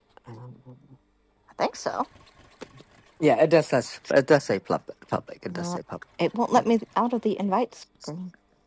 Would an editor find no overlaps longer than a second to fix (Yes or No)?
Yes